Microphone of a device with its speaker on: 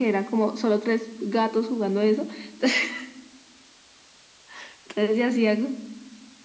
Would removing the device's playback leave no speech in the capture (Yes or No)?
Yes